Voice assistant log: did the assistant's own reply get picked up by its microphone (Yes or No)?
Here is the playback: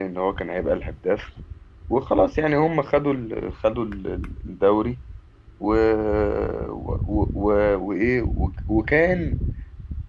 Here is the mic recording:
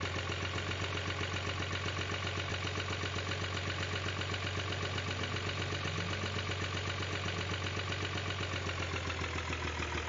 No